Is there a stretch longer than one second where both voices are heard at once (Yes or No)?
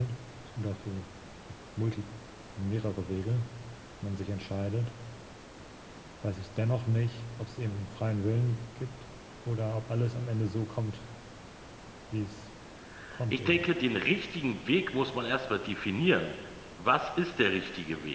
No